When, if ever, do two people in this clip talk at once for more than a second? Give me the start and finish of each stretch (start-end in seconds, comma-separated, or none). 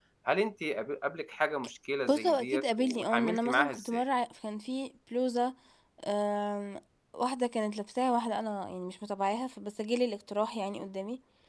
2.1-4.0